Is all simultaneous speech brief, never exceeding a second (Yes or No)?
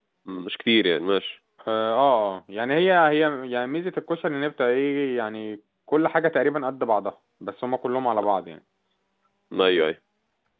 Yes